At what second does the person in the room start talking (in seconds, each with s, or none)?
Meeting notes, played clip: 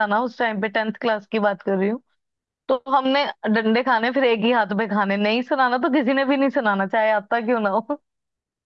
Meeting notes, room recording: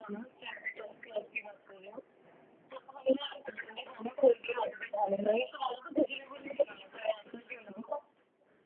none